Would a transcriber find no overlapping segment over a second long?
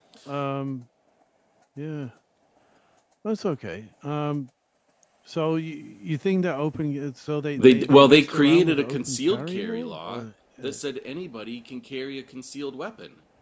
No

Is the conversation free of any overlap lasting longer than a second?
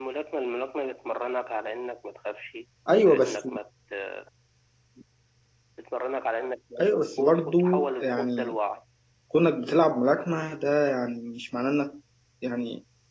No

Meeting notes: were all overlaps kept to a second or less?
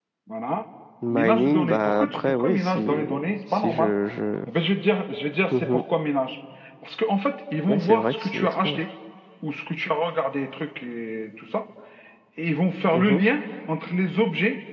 No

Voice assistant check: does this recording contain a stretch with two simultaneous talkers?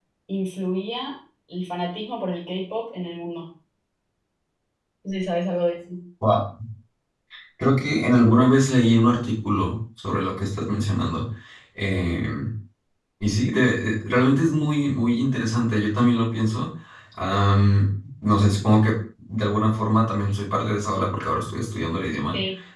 No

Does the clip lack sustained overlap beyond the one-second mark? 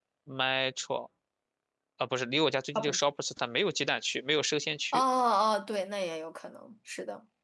Yes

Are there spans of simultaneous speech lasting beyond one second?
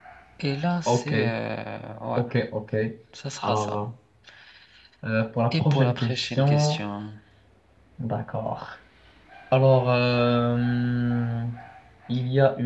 Yes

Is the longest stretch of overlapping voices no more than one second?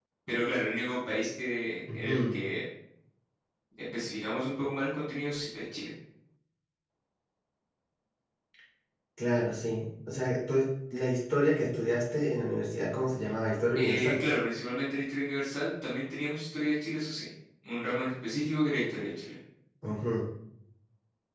Yes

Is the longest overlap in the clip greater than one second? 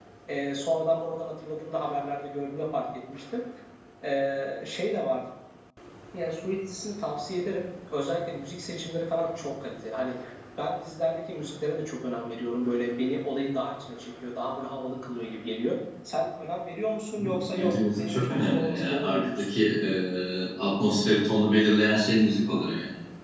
Yes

